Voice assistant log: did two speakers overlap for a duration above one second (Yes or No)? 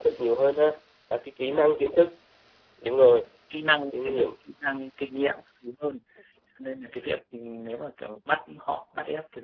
No